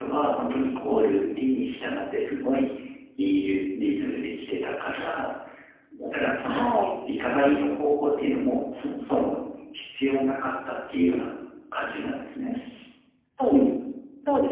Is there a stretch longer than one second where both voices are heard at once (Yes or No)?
No